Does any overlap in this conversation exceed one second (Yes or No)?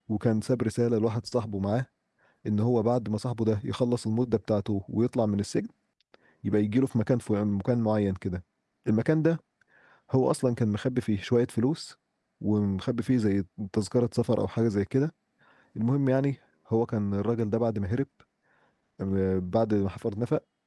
No